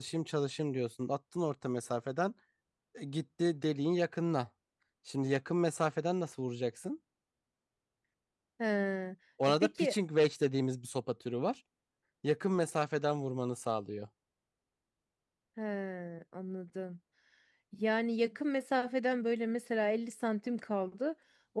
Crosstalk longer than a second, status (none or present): none